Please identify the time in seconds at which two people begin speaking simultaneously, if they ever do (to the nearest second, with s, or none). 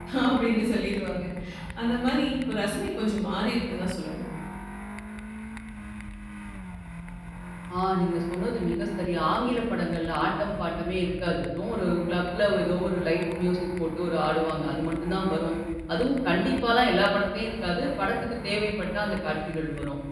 none